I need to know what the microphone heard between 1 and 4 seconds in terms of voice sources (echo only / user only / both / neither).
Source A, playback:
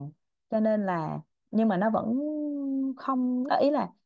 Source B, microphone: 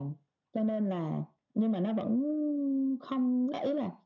echo only